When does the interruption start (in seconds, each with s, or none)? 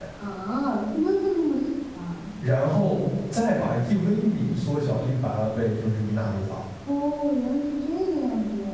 none